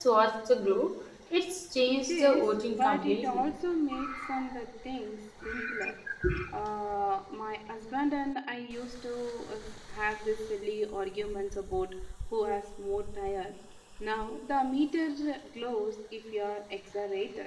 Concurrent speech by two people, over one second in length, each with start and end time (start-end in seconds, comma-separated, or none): 1.9-3.4